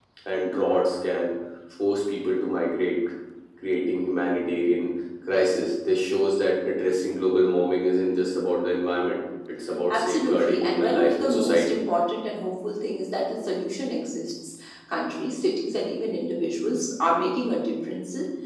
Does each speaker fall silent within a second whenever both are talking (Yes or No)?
No